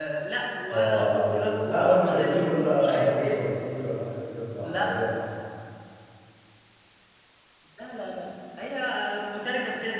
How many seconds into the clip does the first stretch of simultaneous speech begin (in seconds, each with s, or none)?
0.7 s